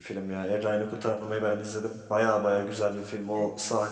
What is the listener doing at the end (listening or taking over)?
listening